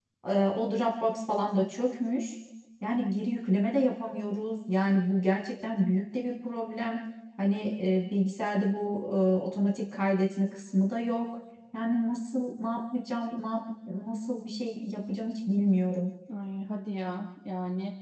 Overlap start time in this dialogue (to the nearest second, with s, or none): none